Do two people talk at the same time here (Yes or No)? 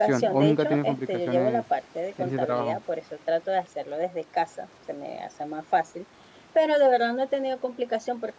Yes